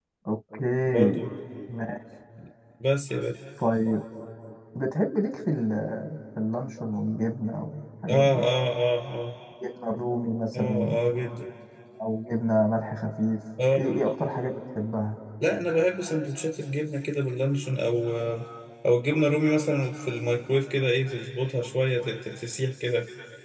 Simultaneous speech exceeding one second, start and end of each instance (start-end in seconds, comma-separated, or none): none